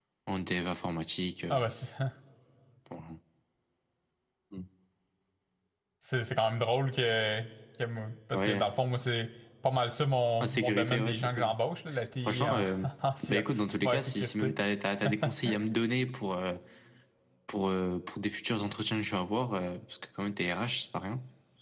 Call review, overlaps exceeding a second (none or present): present